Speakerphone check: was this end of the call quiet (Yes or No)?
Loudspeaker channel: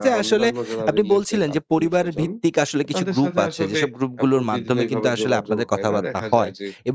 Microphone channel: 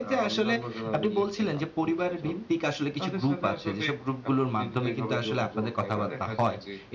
Yes